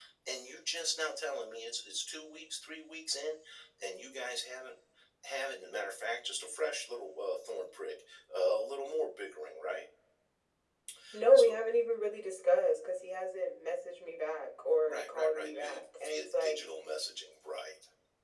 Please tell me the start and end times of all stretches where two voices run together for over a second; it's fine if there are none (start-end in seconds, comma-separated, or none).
14.8-16.6